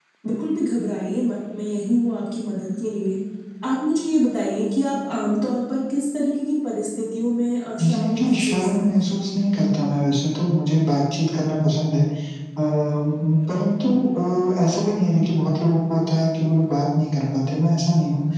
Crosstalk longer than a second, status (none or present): present